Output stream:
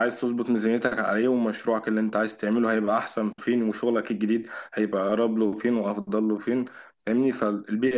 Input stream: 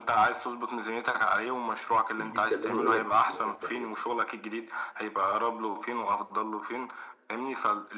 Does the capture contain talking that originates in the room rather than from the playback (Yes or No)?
Yes